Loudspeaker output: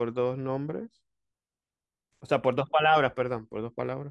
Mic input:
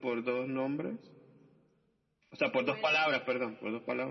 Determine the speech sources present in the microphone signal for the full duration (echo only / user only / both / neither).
both